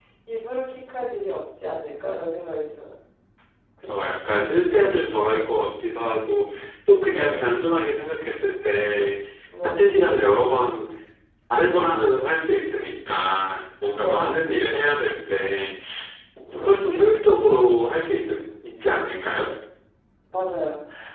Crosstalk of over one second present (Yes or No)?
No